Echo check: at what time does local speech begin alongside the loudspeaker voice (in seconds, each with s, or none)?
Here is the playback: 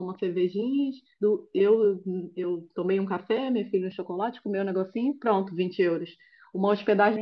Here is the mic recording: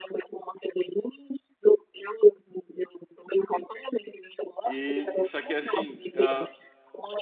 4.6 s